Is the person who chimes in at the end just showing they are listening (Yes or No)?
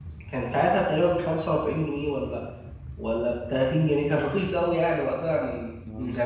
No